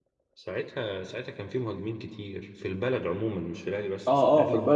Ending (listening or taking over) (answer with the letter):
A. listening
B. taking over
B